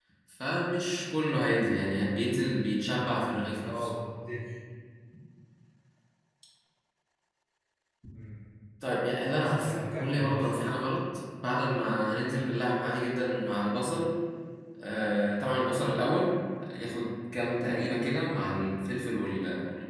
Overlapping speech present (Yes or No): Yes